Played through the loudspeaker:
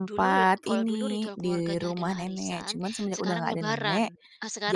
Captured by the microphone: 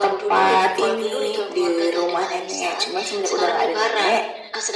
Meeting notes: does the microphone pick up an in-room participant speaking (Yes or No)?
No